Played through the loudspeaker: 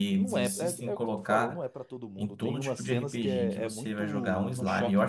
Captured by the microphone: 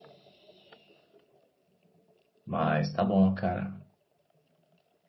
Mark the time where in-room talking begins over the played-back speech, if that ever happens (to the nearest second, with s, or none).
2 s